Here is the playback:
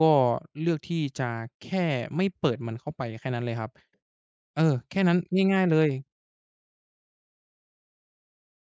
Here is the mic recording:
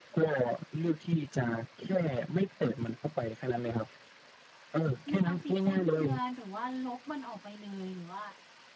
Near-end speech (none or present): present